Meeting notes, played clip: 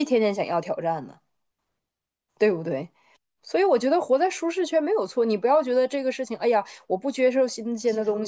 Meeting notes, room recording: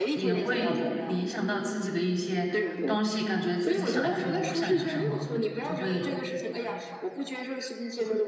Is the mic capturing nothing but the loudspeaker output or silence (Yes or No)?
No